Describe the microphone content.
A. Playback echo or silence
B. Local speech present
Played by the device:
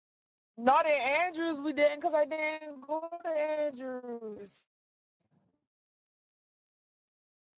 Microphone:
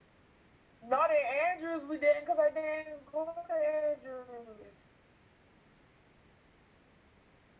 A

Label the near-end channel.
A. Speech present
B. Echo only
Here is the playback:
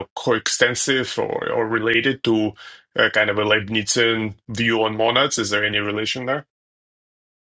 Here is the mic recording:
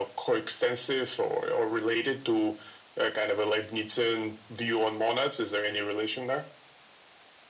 B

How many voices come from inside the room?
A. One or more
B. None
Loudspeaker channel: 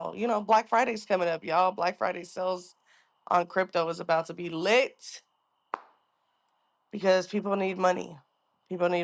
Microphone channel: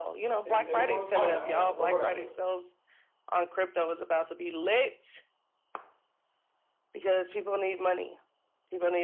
A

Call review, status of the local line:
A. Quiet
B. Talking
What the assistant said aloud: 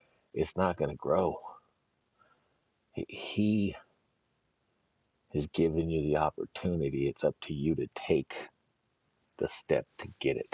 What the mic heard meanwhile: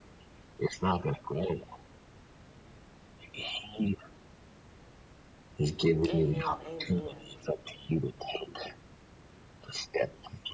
B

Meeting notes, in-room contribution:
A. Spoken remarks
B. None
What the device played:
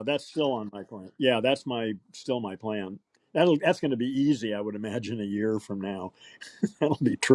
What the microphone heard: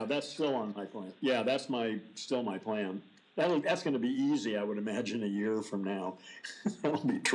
B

